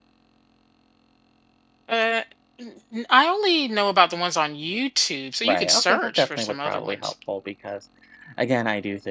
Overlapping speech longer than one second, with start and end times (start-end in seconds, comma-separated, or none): 5.4-7.1